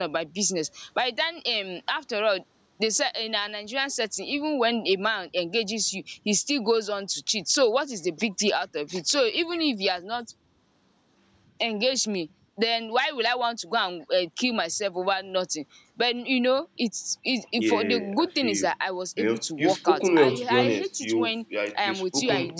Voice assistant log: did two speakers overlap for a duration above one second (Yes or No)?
Yes